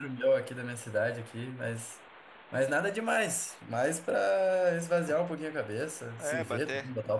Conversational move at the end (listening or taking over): taking over